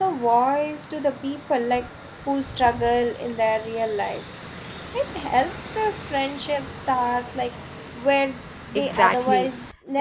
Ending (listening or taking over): taking over